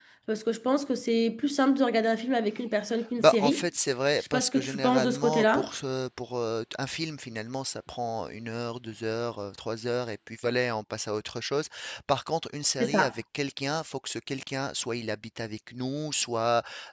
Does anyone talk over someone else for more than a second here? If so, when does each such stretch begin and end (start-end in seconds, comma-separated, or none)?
4.3-5.7